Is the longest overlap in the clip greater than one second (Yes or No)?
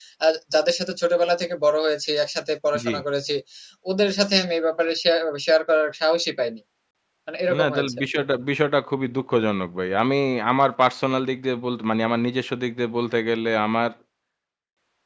No